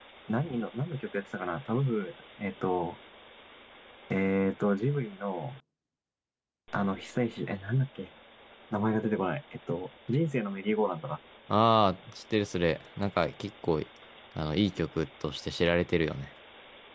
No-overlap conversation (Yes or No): Yes